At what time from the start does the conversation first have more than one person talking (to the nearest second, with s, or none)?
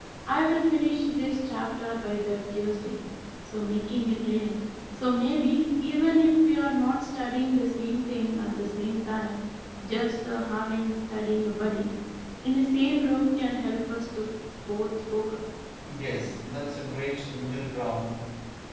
none